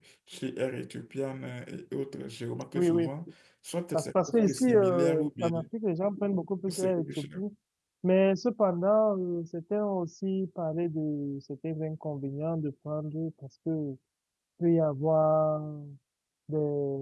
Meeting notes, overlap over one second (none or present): present